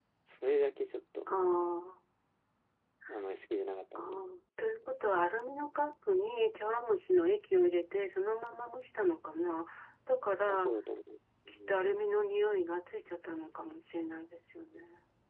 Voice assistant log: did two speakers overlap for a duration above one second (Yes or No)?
No